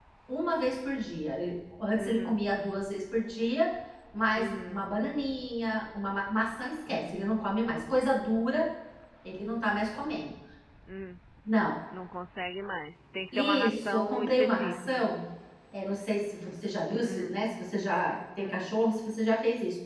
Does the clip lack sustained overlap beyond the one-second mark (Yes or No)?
No